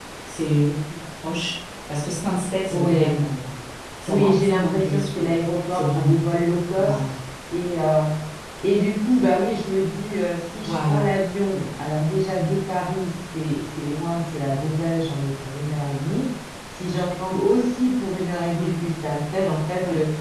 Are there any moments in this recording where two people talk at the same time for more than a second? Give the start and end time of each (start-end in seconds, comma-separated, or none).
4.1-5.3